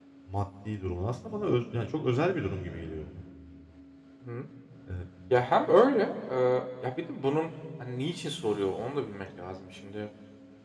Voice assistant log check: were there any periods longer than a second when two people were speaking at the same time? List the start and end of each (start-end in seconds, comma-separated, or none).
none